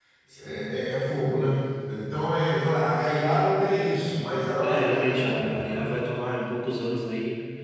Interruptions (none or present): present